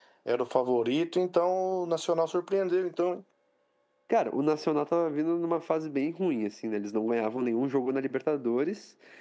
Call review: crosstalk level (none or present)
none